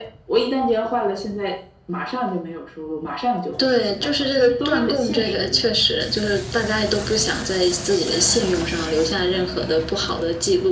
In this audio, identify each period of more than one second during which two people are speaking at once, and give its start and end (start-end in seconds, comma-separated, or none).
3.6-5.7